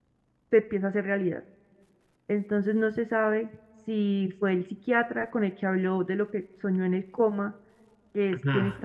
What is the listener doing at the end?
taking over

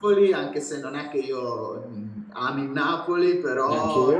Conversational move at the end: listening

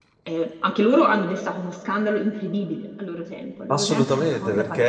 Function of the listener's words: taking over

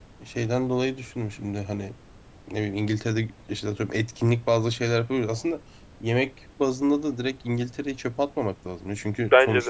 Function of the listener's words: listening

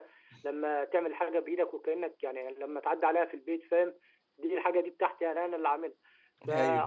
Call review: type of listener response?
listening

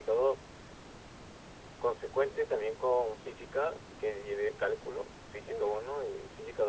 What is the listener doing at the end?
listening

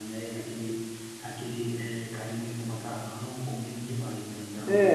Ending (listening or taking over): taking over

